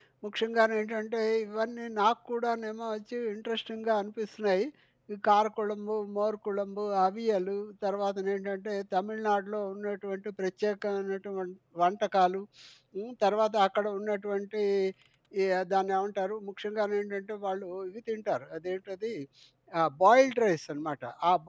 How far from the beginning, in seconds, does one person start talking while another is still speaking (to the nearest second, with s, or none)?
none